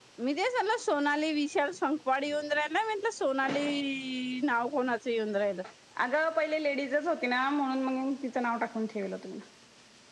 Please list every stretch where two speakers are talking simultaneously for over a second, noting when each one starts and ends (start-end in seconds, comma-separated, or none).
none